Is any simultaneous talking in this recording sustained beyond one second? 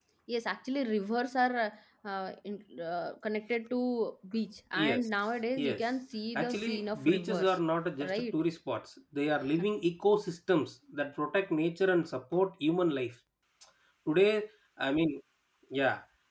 Yes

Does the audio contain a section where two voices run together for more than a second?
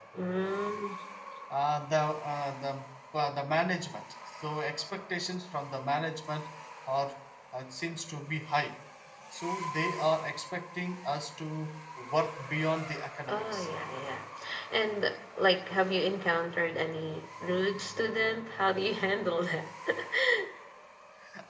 No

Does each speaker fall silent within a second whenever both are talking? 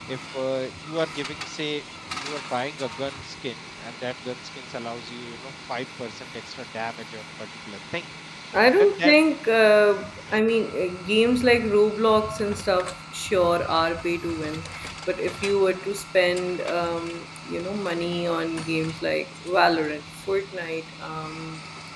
Yes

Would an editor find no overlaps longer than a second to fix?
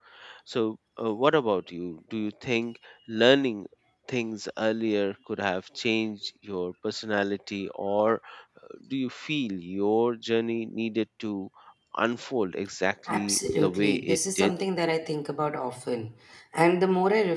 No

